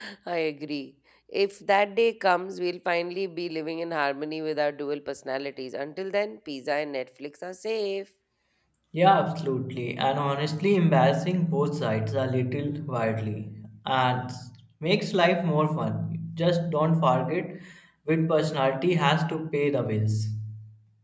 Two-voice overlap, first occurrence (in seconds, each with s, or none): none